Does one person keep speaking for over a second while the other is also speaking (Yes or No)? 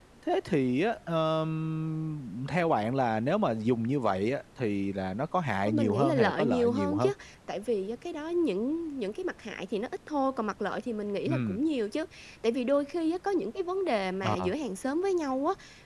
Yes